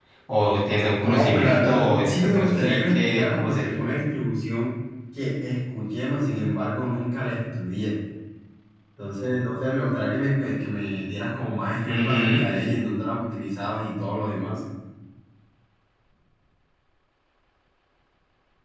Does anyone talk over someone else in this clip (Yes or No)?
Yes